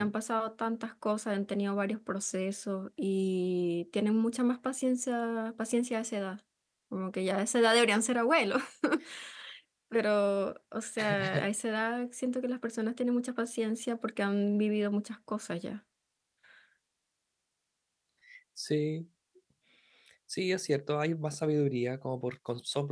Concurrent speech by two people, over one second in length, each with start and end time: none

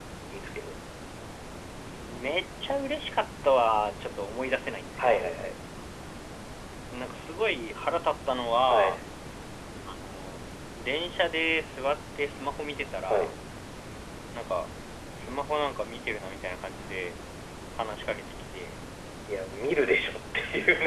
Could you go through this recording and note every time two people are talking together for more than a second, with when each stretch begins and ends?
none

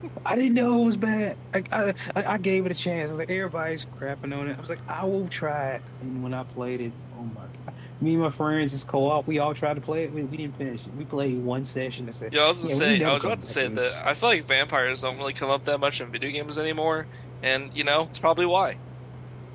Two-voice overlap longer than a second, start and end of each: 12.4-14.0

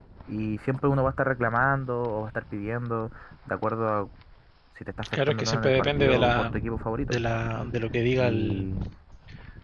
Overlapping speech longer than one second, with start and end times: 5.3-6.5

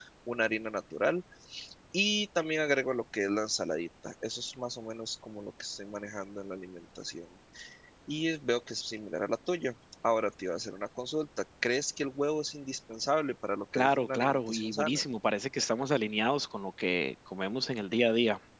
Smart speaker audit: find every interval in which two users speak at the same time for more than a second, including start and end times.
13.8-15.0

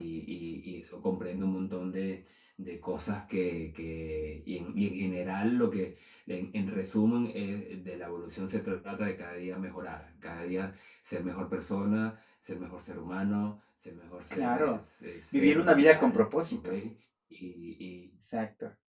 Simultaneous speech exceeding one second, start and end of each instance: 15.3-16.6

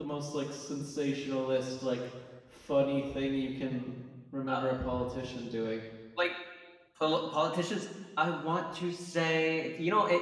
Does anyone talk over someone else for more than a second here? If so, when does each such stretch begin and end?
none

